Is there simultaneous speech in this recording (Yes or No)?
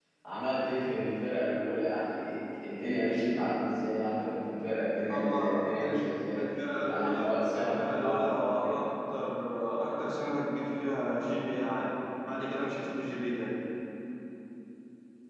Yes